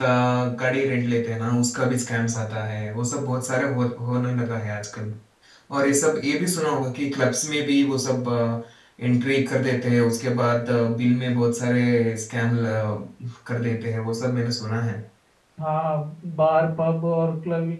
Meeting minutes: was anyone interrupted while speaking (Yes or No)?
No